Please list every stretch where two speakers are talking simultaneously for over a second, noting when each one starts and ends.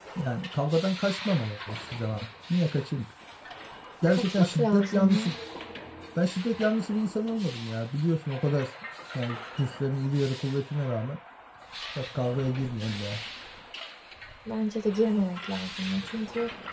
4.1-5.3

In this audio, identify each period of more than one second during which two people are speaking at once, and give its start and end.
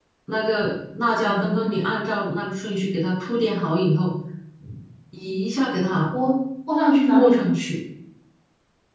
none

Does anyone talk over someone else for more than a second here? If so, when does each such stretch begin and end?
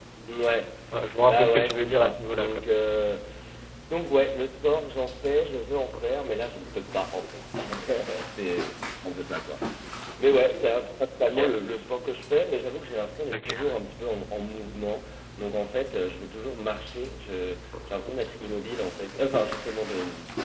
1.3-2.6

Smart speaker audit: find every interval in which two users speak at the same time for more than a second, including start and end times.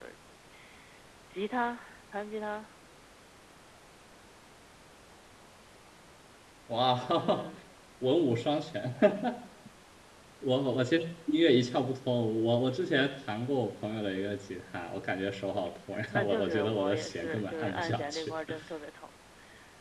16.1-18.3

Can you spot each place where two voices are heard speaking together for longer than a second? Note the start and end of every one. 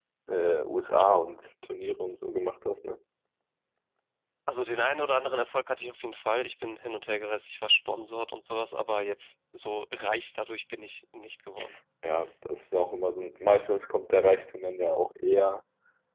none

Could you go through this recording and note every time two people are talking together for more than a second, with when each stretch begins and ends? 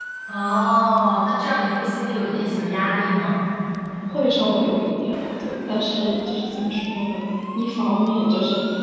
none

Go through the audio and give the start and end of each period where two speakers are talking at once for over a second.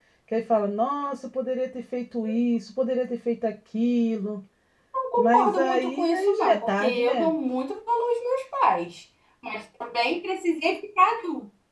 5.2-7.3

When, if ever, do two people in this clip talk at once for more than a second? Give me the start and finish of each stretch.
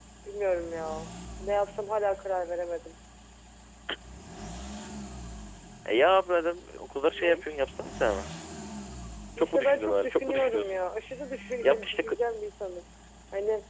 9.4-10.8

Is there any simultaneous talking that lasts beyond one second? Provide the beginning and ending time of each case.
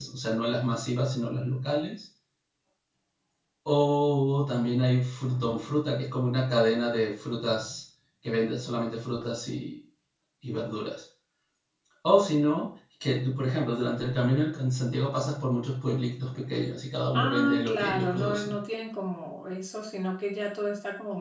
17.2-18.6

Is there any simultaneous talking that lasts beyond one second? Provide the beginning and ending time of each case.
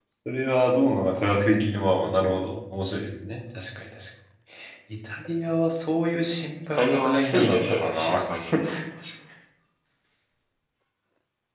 6.8-8.6

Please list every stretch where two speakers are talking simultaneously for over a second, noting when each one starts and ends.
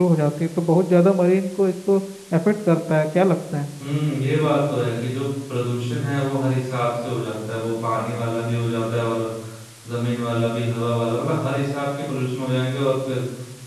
none

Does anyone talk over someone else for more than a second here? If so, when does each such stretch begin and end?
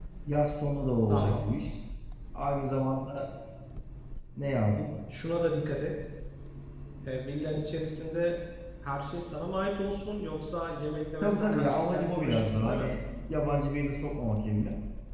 11.2-12.9

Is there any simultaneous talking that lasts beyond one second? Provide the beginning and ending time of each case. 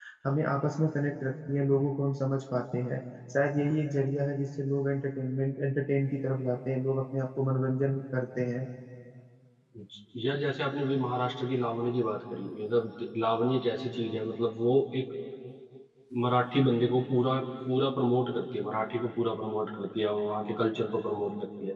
none

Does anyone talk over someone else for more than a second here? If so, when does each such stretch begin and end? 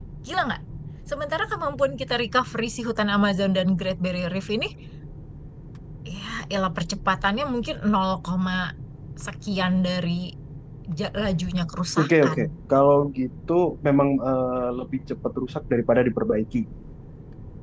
none

